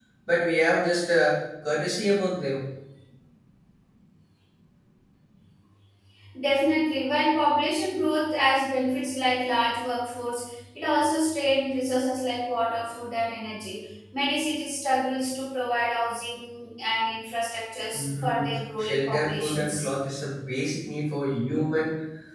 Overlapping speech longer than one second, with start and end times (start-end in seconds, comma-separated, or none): 17.9-19.8